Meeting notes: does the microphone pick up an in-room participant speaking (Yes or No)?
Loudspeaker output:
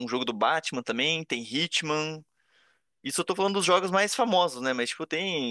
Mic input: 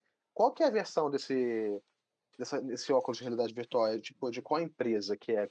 Yes